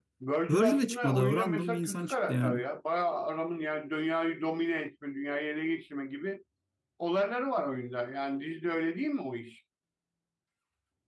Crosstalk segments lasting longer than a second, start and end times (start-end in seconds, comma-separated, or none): 0.5-2.6